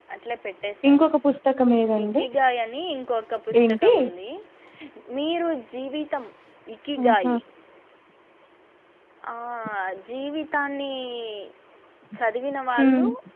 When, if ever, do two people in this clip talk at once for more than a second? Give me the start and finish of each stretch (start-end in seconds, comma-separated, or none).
none